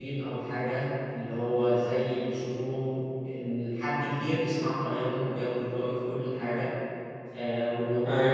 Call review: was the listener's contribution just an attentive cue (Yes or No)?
Yes